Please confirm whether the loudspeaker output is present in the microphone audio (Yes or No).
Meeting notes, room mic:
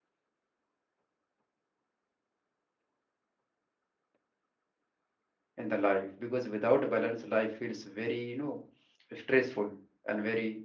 No